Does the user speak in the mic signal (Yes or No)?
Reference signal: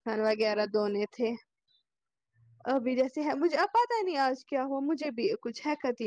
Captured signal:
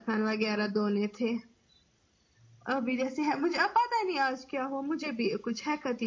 No